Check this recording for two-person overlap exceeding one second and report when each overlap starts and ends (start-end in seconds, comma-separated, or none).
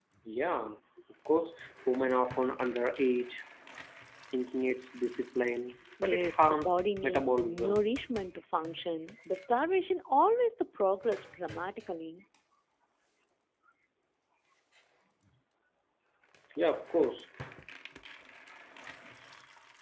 6.0-7.9